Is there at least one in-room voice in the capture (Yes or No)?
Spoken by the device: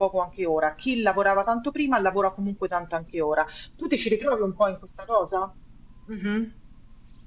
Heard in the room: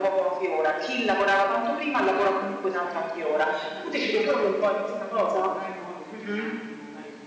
Yes